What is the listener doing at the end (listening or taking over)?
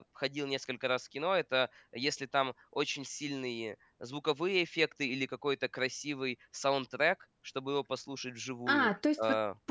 taking over